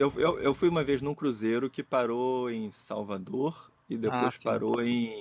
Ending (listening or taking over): listening